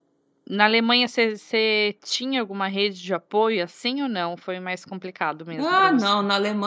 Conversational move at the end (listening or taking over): taking over